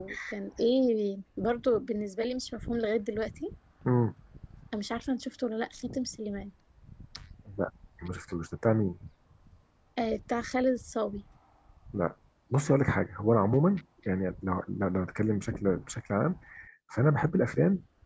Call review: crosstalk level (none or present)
none